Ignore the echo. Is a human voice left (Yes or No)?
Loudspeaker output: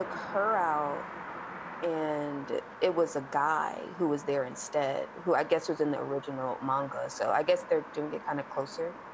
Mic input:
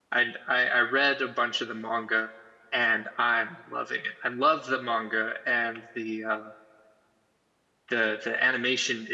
Yes